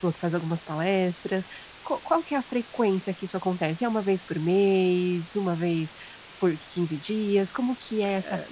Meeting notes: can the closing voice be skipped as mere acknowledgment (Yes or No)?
No